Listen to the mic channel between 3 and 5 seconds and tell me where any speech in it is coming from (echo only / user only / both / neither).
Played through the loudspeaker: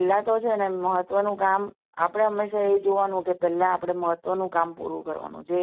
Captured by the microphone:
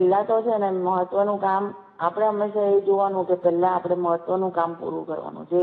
echo only